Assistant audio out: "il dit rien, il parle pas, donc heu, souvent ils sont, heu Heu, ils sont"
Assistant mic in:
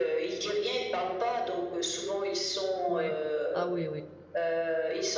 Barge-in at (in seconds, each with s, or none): 2.9 s